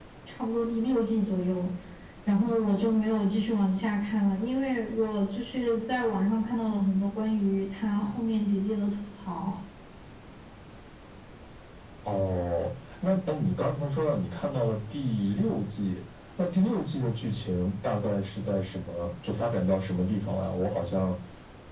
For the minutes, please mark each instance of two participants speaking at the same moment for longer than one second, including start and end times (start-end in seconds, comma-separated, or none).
none